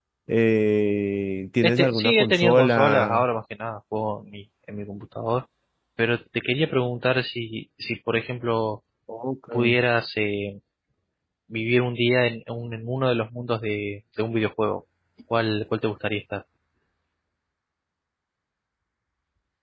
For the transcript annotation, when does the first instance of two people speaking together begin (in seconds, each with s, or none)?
1.6 s